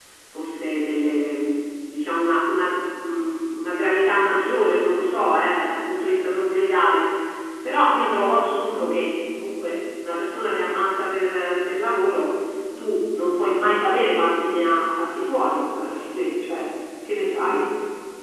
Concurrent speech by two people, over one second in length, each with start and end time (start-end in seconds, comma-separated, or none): none